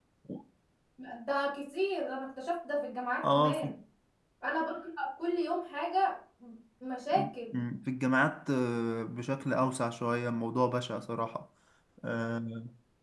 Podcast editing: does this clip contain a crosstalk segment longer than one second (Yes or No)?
No